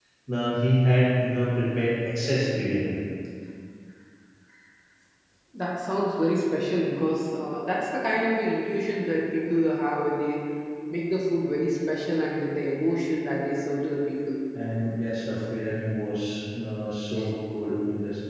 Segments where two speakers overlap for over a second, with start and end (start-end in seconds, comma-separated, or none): none